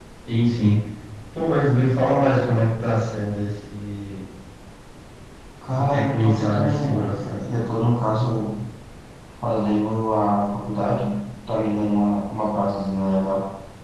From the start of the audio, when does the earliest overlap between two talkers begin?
5.6 s

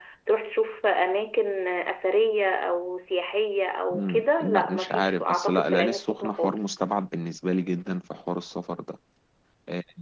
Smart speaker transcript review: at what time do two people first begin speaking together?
3.9 s

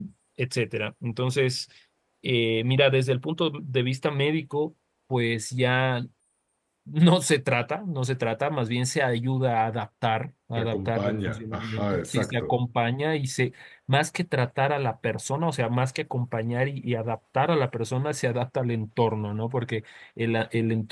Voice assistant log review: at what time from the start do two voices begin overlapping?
10.6 s

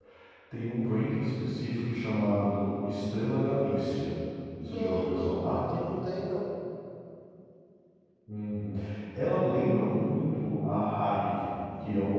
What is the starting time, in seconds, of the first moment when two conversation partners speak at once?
4.7 s

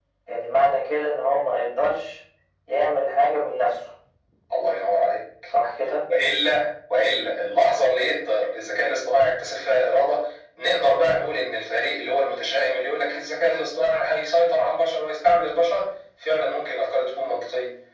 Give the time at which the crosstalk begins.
none

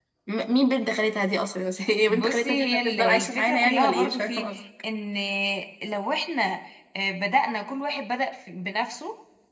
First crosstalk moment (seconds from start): 2.1 s

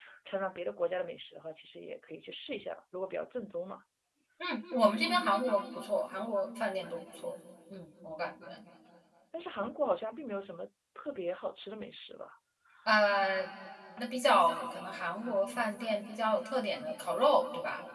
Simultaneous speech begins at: none

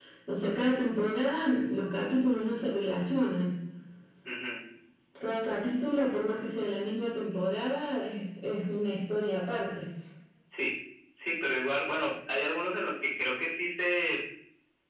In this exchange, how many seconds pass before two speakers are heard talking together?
none

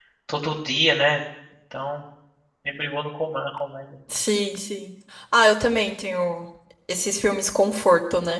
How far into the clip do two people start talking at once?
none

